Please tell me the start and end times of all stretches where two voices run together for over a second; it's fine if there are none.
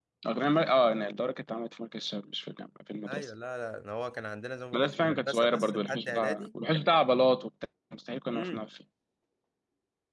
4.7-6.5

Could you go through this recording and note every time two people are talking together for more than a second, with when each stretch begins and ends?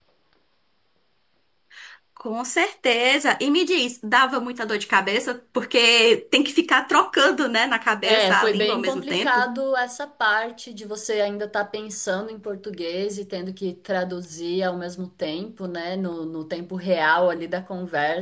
8.1-9.4

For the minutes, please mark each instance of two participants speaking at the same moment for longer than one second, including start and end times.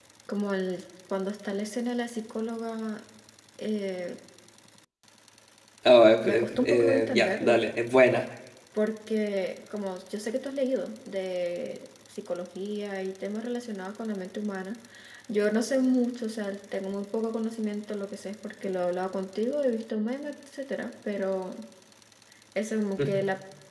6.2-7.6

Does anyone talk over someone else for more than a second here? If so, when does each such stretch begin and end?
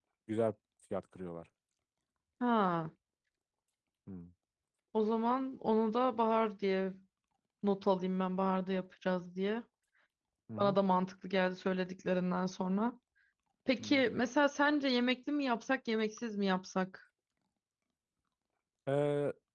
none

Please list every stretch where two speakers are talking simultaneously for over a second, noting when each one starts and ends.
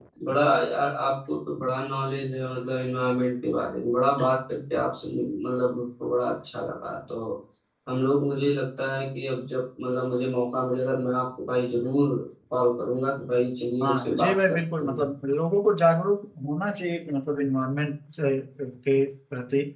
13.8-15.1

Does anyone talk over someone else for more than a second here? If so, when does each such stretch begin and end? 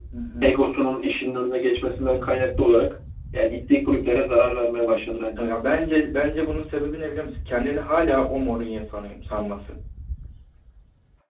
none

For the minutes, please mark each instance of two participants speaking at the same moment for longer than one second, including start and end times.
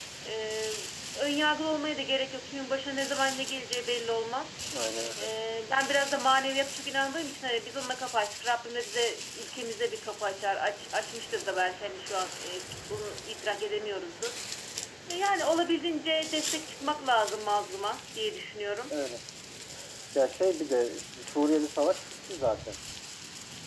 none

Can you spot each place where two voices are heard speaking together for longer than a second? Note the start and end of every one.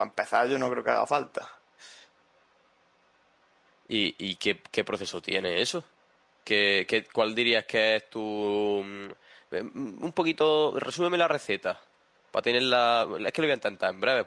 none

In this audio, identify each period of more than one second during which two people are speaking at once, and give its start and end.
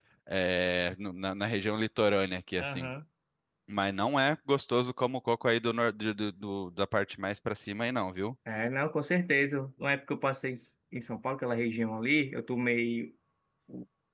none

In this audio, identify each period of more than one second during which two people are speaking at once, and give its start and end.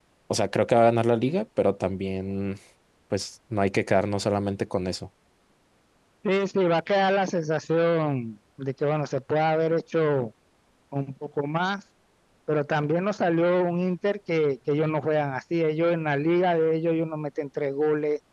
none

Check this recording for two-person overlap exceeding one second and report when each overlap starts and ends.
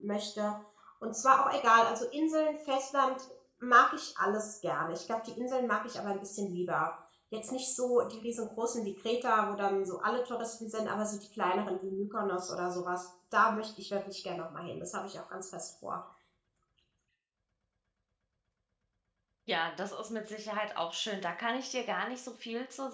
none

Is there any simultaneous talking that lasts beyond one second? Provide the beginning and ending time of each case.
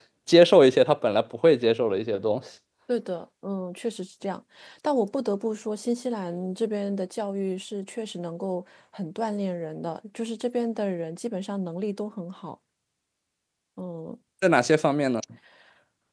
none

